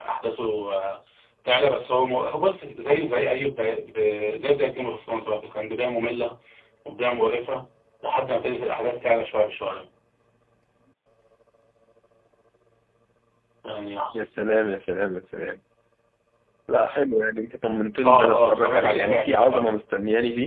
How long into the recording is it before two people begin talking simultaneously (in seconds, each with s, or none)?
18.0 s